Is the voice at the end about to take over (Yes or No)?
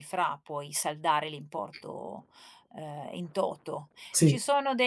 No